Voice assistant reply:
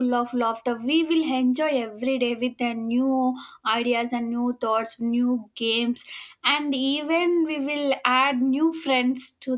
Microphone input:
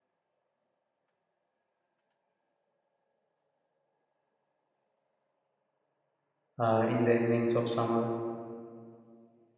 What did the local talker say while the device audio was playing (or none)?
uh, in the evenings of summer.